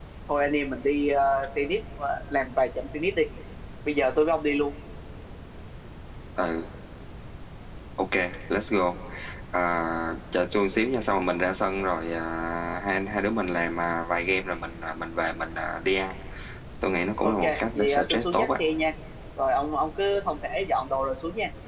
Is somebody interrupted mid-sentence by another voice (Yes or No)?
Yes